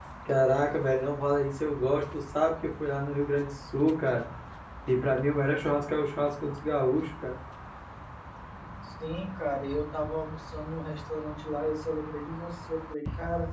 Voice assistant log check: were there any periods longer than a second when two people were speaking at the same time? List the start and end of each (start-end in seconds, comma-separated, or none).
none